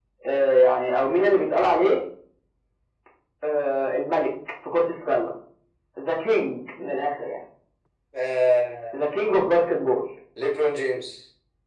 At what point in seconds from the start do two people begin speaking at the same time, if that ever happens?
none

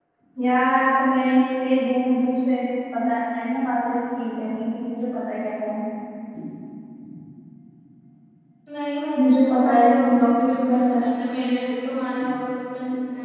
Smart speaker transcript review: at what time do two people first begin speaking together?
9.2 s

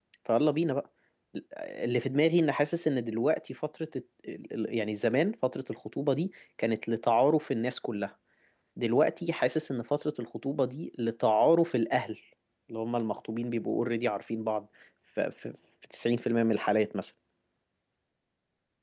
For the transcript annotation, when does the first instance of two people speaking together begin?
none

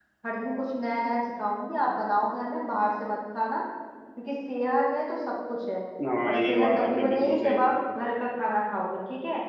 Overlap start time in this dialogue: 6.2 s

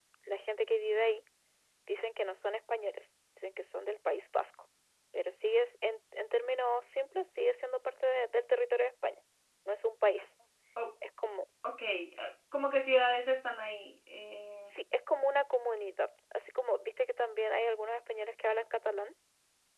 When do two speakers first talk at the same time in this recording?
none

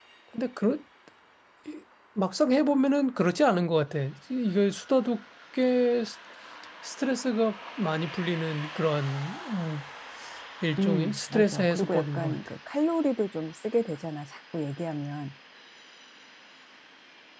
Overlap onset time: 10.8 s

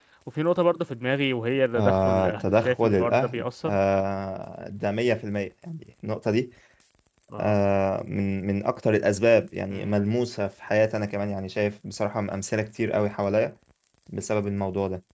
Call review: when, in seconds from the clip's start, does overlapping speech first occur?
1.8 s

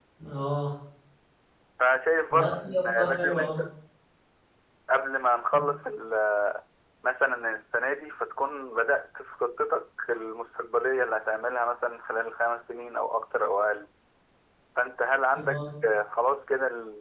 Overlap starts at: 2.3 s

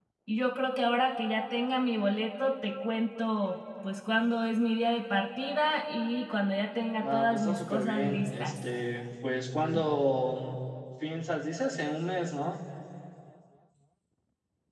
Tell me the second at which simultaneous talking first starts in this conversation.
7.0 s

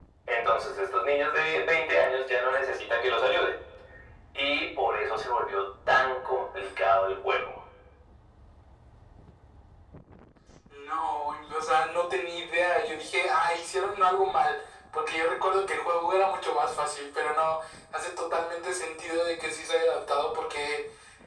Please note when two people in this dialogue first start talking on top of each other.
none

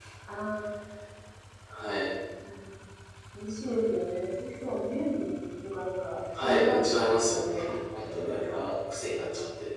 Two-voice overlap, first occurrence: 6.3 s

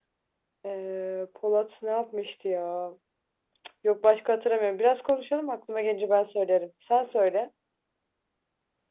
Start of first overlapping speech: none

